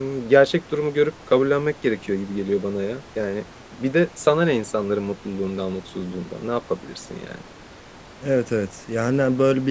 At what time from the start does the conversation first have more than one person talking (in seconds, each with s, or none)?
none